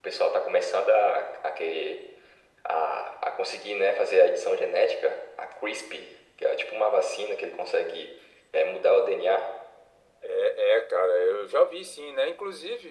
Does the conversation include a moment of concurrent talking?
No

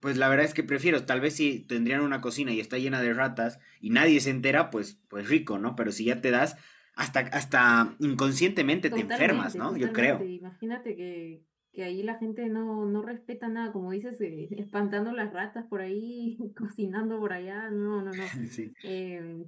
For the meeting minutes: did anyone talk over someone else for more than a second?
Yes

